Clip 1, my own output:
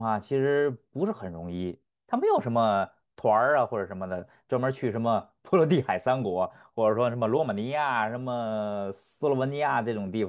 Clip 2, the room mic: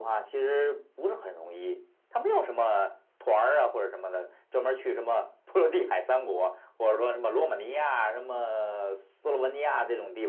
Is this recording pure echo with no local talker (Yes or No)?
Yes